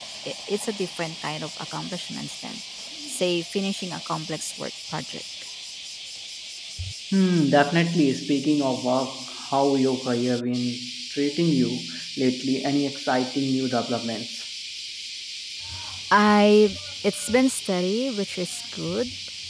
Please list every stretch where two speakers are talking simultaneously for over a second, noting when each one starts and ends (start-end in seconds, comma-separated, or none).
none